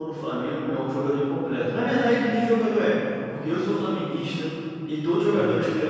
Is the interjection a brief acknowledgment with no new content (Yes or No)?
Yes